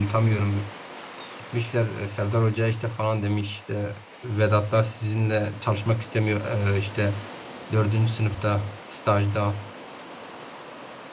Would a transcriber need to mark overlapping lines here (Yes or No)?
No